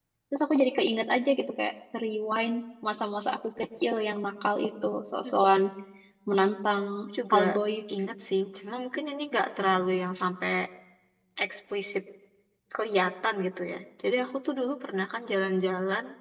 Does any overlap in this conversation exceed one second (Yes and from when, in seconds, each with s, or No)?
No